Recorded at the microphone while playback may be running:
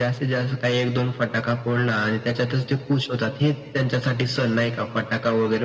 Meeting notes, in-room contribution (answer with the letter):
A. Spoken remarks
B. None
B